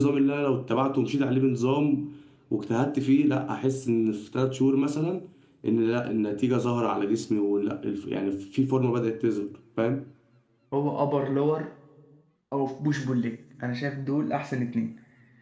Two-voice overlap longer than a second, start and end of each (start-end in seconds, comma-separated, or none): none